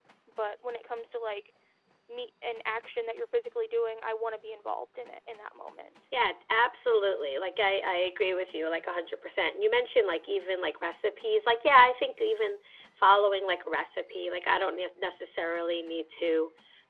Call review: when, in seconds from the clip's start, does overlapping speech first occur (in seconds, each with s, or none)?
none